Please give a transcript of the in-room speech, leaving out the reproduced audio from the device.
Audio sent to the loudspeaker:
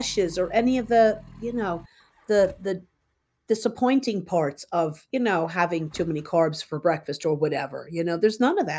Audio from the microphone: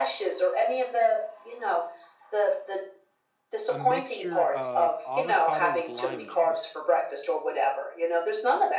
a mixture of avocado with lime juice.

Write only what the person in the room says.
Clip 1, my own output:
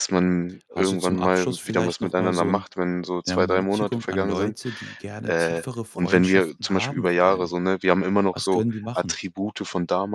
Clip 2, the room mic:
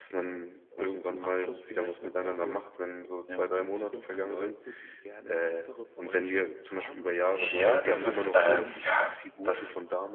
Ja, das ist äh, ja, das

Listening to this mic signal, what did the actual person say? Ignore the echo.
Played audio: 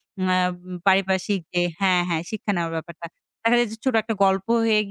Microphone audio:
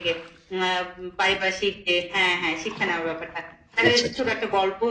আচ্ছা, আচ্ছা।

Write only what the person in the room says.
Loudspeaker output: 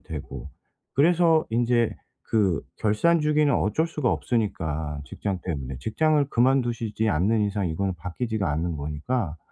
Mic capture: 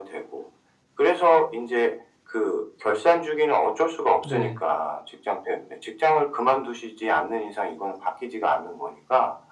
네.

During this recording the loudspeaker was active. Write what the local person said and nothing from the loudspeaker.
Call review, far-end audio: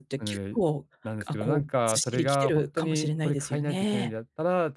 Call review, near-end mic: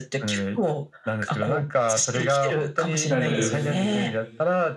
たるす

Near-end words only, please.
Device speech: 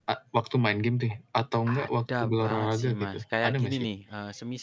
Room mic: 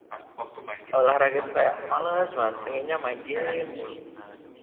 olahraga itu kayak males banget, pengennya main game mulu.

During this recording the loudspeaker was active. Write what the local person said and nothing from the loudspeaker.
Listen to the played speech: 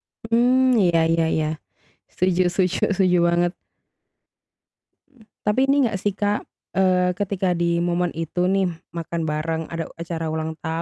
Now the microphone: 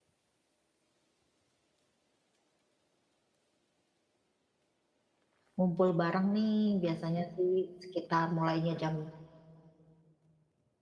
ngumpul bareng nih biasanya sih sekitar mulainya jam

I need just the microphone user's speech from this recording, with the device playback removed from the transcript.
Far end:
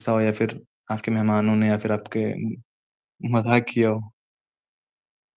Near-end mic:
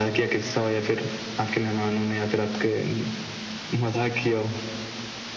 none

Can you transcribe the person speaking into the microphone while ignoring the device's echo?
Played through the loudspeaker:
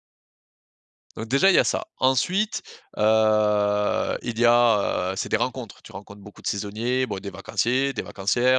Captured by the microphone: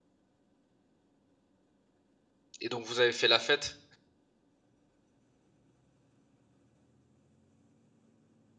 Et donc vous avez fait la fête?

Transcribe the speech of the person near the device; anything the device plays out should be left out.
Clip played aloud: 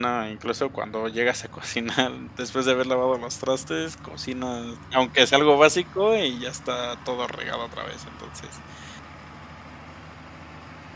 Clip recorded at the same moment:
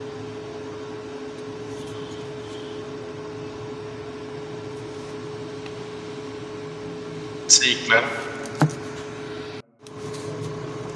Sí, claro.

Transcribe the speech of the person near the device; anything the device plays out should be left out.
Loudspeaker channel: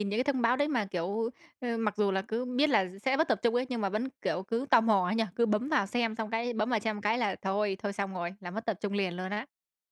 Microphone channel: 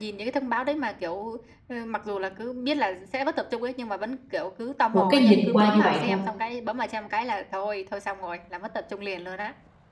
một cái nhìn qua như vậy thôi

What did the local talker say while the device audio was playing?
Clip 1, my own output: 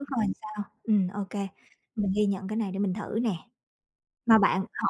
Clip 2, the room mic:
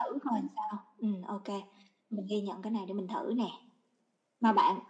none

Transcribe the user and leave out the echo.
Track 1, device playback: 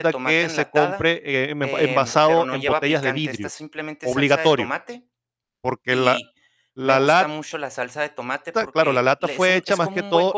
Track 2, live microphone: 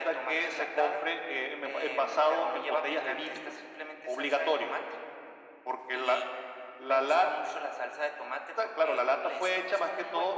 none

